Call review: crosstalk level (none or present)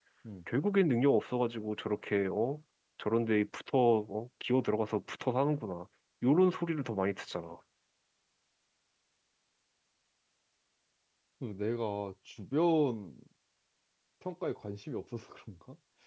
none